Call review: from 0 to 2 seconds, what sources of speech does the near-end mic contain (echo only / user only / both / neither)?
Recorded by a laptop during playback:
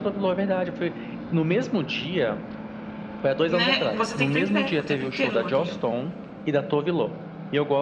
echo only